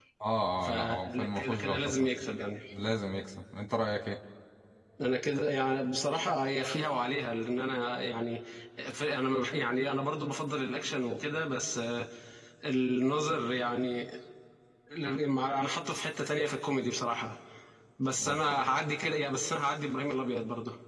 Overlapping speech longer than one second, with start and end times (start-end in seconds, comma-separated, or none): 0.6-2.1